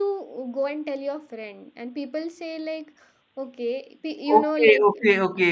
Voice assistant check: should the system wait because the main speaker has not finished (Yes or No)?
No